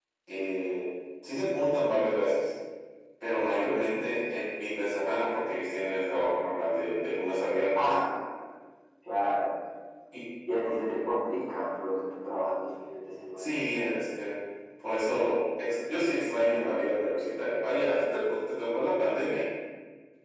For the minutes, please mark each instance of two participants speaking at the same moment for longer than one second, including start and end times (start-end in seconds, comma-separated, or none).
none